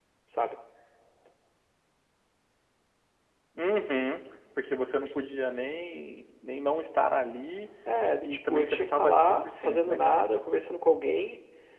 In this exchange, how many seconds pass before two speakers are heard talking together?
8.2 s

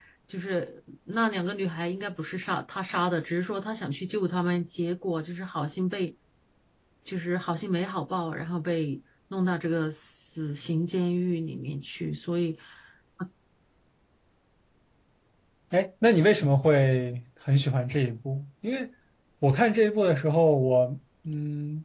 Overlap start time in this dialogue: none

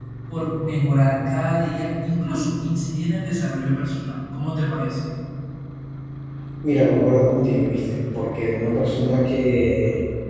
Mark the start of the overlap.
none

